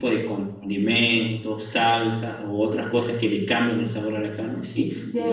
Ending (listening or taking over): listening